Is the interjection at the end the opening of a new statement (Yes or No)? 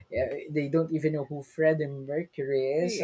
No